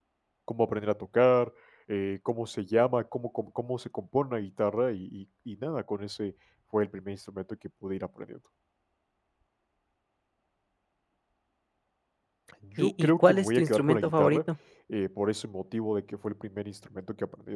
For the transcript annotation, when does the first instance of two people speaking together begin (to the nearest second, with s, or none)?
13 s